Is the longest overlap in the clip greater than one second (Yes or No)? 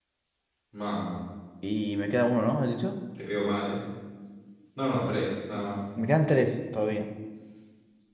No